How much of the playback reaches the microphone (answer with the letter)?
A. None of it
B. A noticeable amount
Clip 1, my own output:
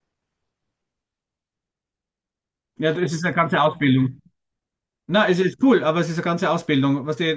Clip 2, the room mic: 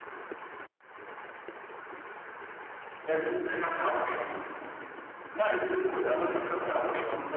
B